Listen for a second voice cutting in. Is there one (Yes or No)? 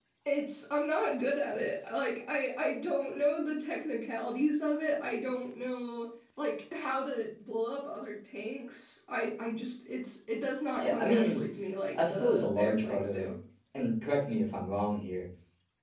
Yes